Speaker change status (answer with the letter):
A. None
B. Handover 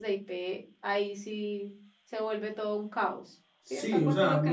B